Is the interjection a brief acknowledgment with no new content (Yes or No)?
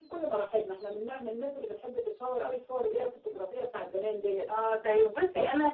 No